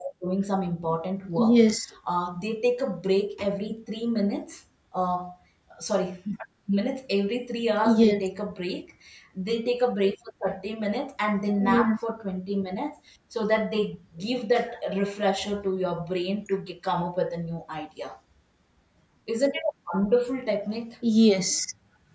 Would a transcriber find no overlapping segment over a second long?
Yes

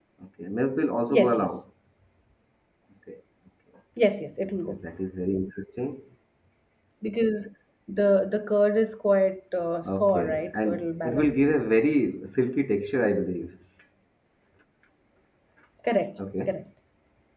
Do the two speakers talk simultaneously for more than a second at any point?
Yes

